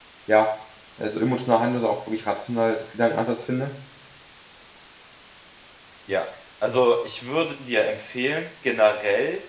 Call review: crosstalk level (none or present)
none